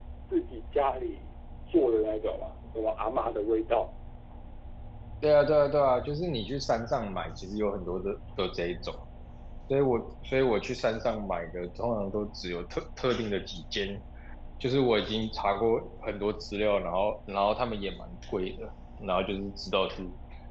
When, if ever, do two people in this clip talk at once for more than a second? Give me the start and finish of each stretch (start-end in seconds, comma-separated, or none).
none